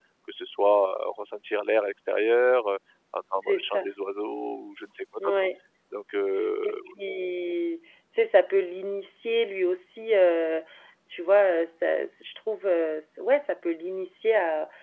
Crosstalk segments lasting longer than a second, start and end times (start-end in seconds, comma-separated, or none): none